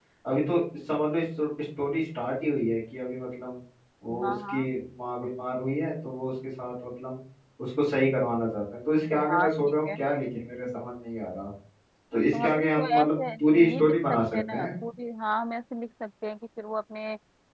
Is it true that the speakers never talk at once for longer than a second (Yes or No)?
No